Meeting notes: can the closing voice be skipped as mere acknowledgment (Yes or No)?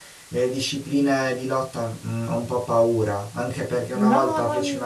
Yes